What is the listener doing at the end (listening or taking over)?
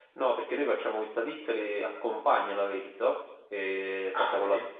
listening